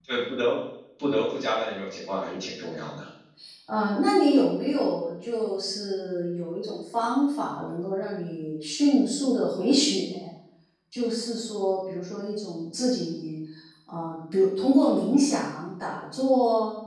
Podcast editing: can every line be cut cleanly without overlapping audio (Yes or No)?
Yes